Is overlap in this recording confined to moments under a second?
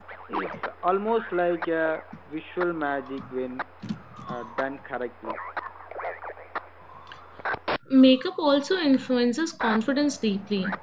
Yes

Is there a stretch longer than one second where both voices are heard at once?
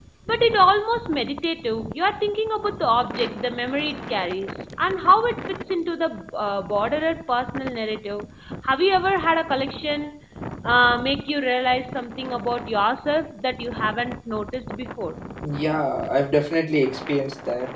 No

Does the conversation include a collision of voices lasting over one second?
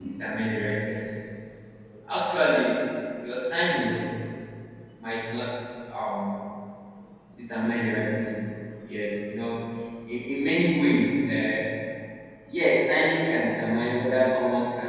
No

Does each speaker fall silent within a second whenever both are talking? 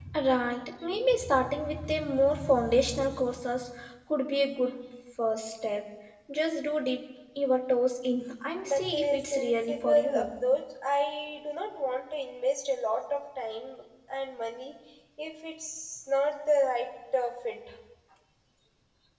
No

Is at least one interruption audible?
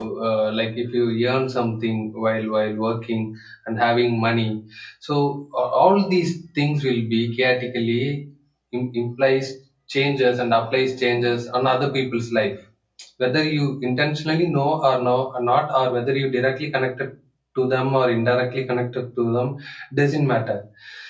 No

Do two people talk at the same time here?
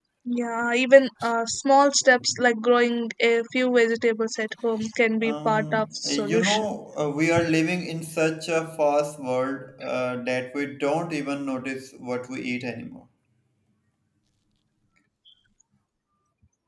Yes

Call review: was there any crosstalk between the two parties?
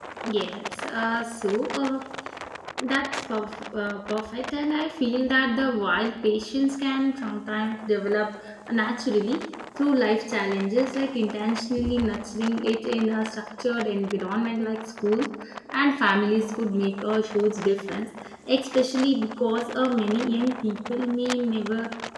No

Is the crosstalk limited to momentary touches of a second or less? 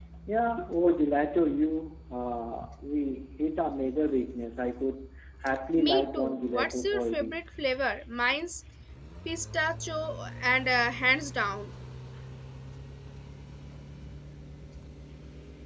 No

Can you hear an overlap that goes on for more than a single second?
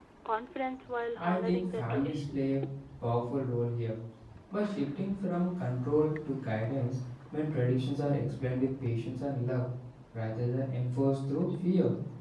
Yes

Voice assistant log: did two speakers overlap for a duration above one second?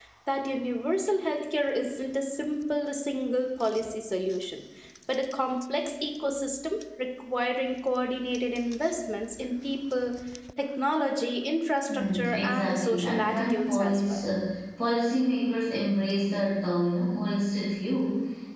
Yes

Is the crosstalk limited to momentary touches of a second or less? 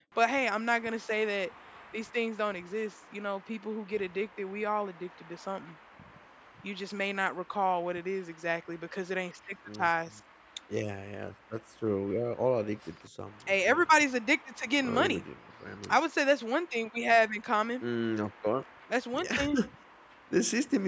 Yes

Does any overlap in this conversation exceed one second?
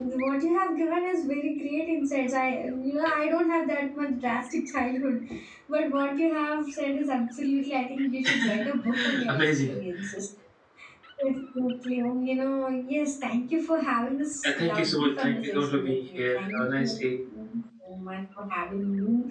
Yes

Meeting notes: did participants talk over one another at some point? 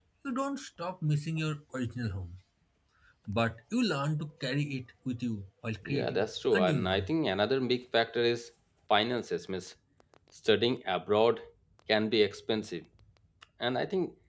Yes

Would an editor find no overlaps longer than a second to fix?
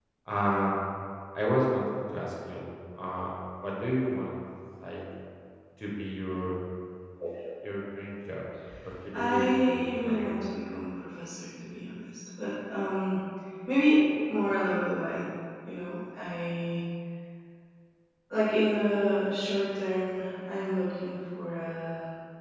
No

